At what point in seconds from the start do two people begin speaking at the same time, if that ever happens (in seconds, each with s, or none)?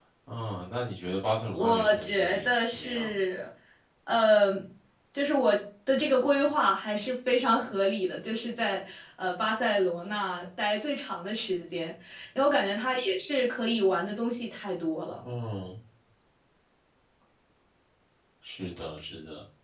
1.5 s